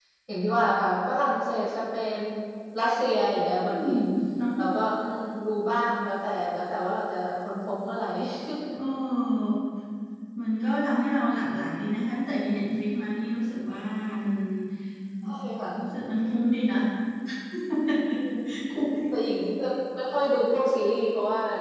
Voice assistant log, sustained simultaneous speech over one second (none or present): none